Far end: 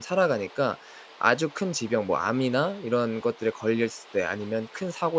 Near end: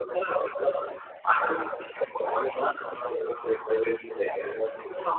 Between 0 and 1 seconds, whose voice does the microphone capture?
echo only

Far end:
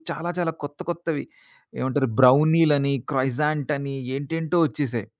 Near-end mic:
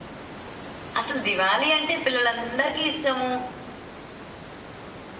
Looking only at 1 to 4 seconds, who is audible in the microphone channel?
user only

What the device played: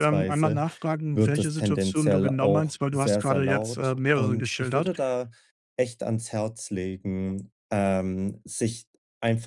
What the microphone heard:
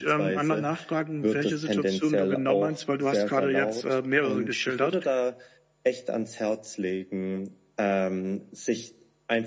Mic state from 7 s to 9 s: echo only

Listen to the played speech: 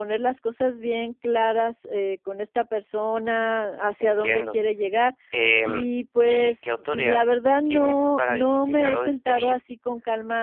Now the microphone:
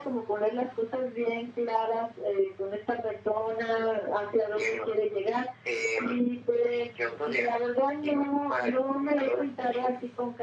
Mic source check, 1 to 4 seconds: echo only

